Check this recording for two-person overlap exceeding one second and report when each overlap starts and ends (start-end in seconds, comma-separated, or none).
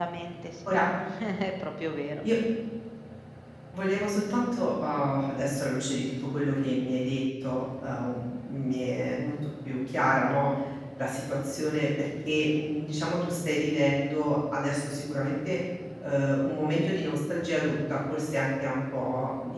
none